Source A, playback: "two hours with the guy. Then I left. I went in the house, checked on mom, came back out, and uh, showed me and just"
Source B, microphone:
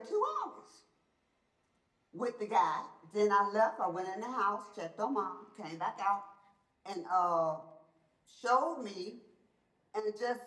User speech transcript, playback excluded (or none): none